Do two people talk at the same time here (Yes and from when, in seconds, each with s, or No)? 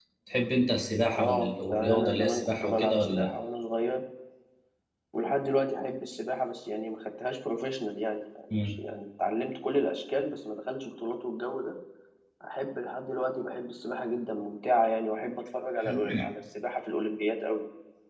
Yes, from 1.2 s